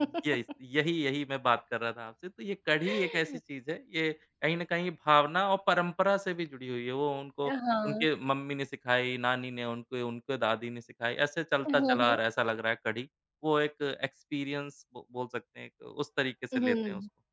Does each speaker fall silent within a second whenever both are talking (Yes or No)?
Yes